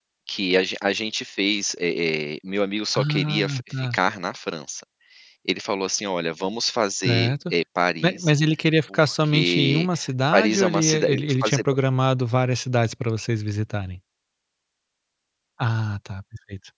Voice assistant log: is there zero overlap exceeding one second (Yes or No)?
No